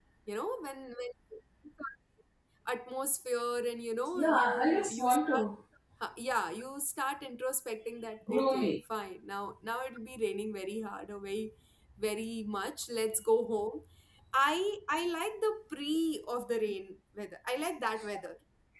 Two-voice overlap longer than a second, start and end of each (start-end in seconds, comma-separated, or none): 4.1-5.5